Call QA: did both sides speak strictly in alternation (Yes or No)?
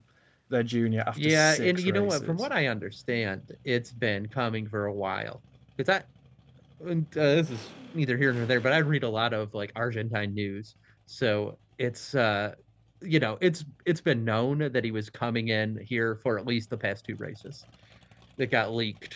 No